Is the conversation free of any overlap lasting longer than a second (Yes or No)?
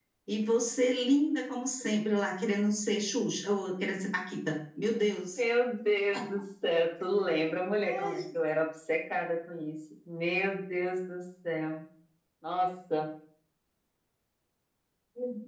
Yes